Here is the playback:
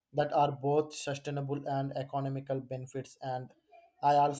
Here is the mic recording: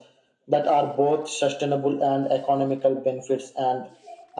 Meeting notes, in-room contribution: none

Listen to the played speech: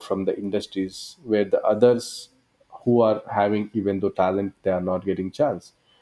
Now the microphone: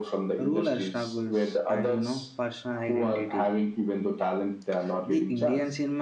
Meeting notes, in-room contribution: present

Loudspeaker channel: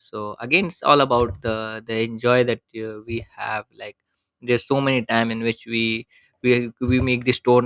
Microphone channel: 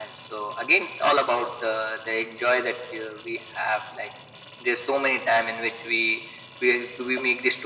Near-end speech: none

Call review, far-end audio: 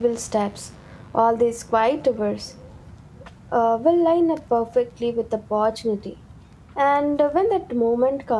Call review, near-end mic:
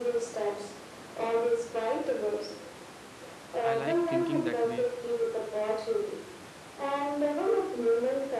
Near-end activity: present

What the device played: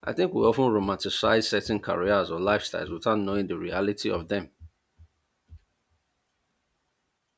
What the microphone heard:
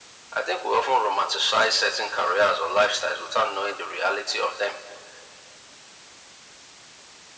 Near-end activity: none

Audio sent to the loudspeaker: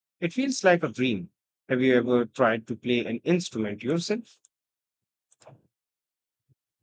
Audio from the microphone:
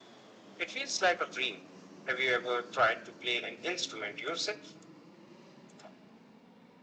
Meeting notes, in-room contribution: none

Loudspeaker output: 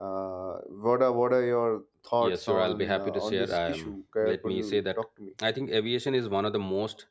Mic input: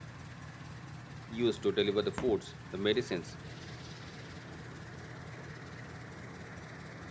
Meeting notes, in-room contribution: present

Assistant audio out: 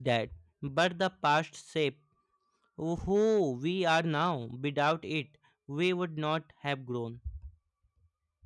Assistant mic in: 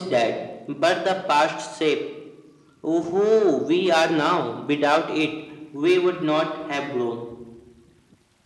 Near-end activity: none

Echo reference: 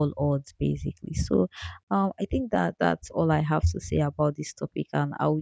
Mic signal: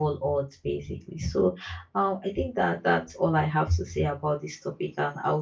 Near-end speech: none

